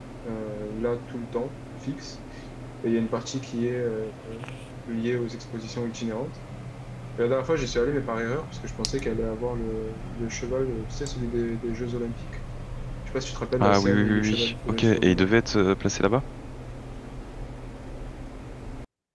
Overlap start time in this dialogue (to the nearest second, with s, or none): 14 s